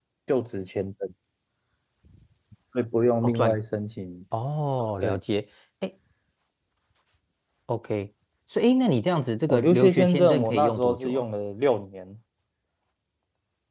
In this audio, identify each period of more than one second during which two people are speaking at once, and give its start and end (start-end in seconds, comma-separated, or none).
9.5-11.2